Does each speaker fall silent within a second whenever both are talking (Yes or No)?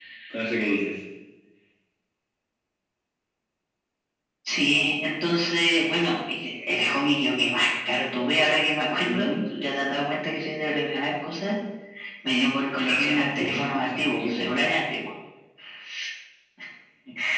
No